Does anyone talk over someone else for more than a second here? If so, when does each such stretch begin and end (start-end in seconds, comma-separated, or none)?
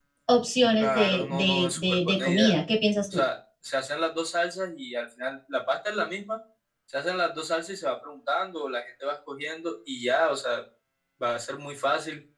0.8-2.5